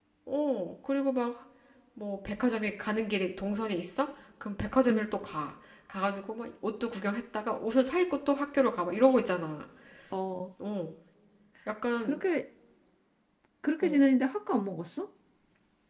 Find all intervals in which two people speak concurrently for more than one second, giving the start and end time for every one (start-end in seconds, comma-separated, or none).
none